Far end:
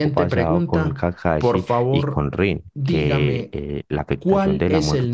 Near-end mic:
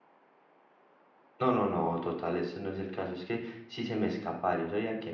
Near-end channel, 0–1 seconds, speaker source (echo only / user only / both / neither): neither